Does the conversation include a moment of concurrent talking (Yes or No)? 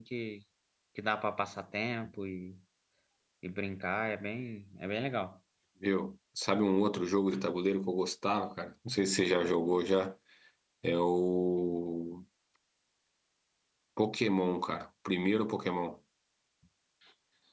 No